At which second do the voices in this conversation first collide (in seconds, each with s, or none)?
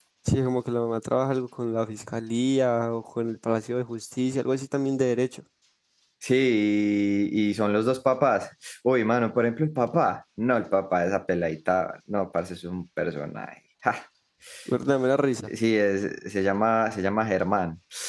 none